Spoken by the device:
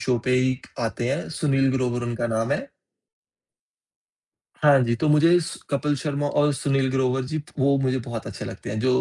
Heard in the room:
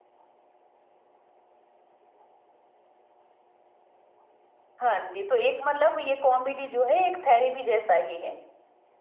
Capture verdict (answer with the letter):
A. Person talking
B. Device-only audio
A